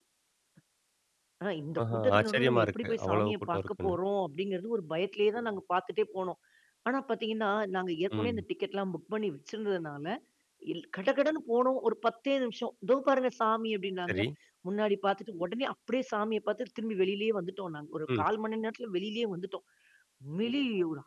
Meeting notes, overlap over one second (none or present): present